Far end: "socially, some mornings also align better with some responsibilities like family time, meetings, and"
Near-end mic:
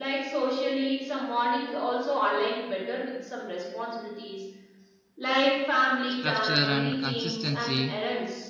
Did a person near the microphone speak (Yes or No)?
Yes